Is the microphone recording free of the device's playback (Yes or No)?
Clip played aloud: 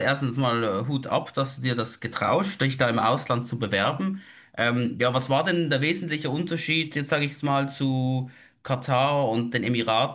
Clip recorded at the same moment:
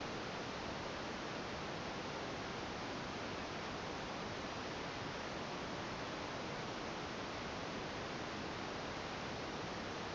Yes